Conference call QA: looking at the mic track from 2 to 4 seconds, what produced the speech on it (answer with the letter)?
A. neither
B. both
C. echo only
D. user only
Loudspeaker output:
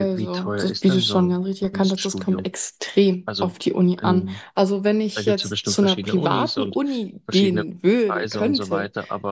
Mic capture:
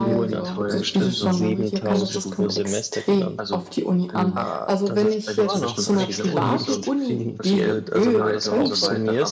B